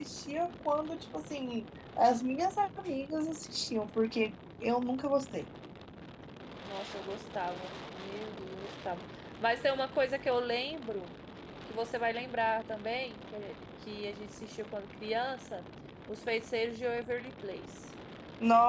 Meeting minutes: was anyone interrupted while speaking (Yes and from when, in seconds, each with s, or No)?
No